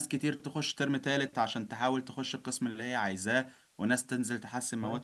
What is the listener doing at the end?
listening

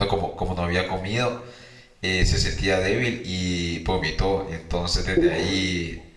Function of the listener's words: listening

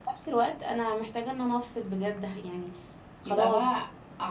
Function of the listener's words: taking over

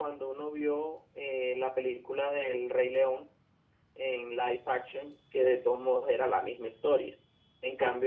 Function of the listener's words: listening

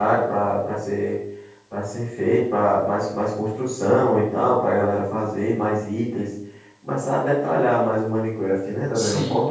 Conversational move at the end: taking over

